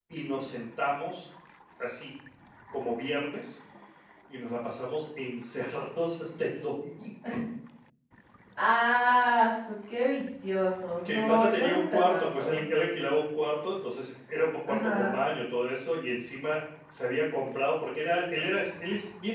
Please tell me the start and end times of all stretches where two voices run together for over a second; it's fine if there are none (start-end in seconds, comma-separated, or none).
11.1-12.6